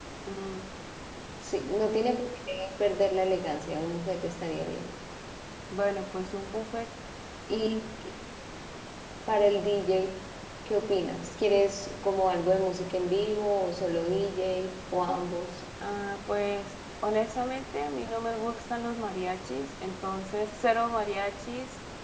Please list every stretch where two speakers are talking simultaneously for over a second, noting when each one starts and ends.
none

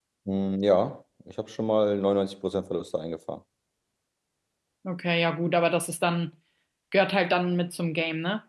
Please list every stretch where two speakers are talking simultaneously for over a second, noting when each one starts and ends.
none

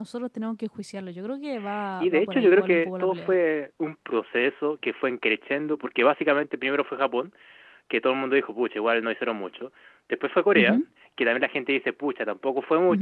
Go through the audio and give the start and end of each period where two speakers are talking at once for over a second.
2.0-3.3

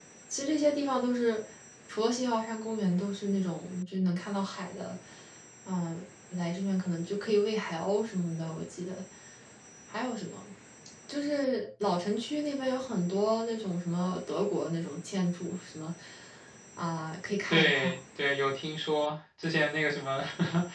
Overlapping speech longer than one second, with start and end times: none

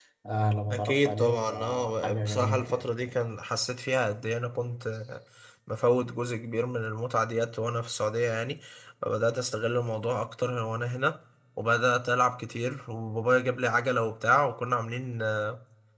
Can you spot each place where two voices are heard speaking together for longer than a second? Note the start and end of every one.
0.7-2.9

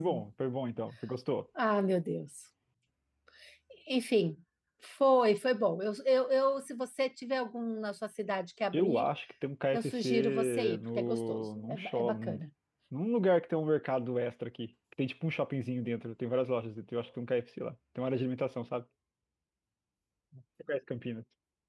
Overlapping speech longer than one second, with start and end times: 9.7-12.4

